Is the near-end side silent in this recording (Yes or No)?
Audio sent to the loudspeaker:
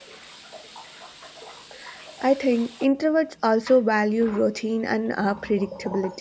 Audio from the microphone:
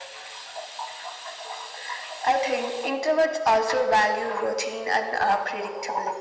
Yes